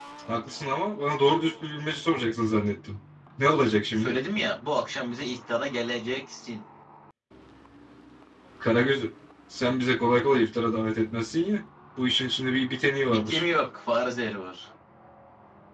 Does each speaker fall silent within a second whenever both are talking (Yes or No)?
Yes